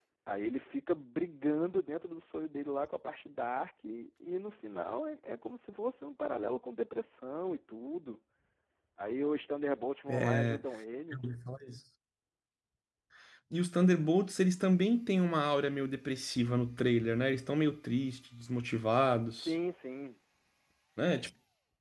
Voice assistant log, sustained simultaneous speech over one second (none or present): none